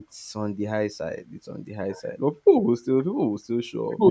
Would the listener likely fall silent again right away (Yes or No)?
No